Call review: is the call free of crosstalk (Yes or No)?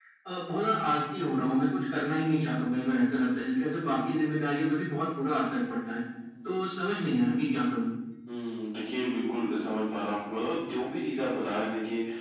Yes